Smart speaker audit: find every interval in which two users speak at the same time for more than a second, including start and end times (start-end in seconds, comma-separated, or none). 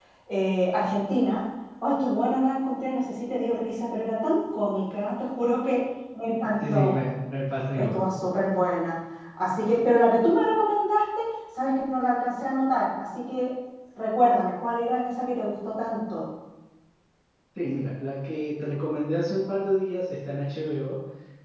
none